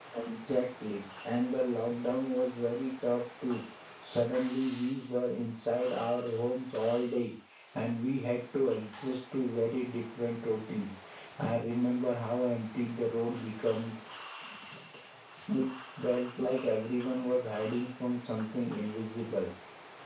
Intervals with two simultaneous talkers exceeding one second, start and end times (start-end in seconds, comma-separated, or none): none